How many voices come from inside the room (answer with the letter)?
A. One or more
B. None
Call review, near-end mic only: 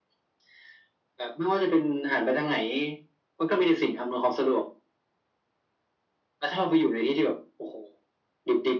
B